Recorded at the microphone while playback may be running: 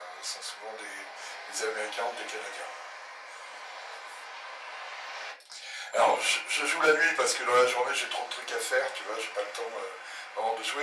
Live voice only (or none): none